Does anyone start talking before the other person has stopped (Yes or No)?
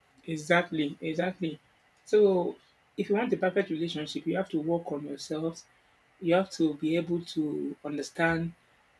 No